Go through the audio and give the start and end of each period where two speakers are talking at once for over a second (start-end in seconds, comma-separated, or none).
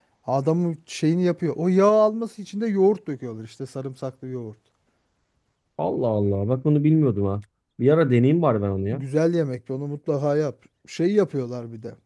none